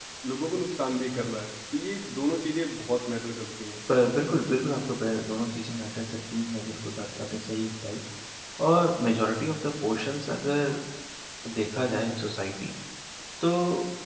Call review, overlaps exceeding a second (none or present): none